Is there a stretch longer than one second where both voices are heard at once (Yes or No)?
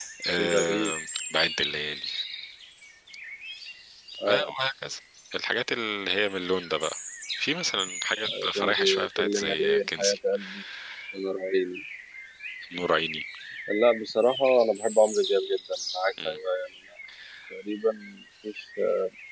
Yes